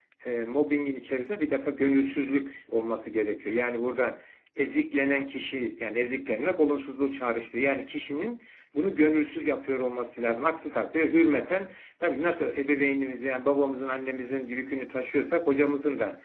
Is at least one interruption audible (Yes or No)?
No